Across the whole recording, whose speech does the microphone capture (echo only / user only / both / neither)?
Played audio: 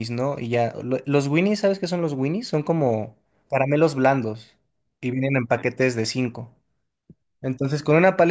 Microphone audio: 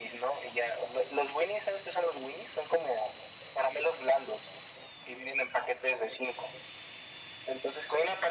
echo only